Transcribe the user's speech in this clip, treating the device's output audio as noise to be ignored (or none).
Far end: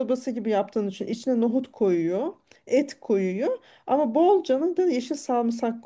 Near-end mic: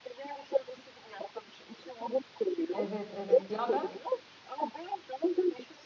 Evet evet. Ya ben